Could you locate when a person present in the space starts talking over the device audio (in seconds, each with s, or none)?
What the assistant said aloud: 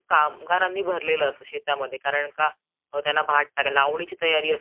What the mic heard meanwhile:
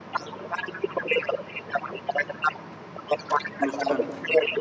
3.7 s